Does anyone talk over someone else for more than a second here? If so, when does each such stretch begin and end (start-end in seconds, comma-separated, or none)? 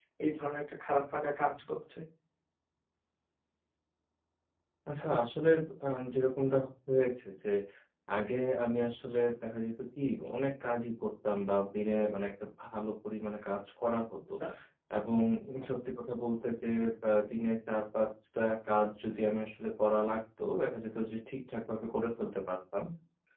none